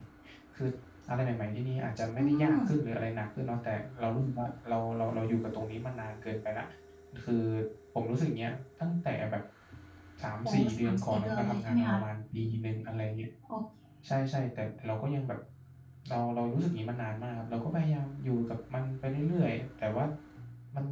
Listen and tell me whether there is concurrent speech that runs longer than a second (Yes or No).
Yes